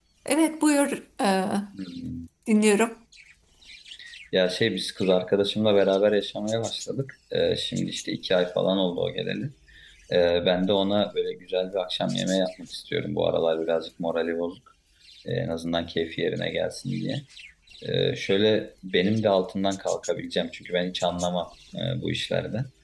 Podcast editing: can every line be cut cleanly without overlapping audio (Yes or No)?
Yes